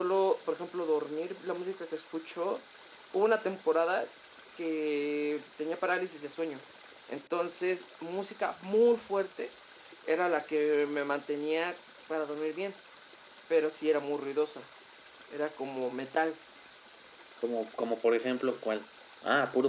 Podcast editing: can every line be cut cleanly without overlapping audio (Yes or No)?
Yes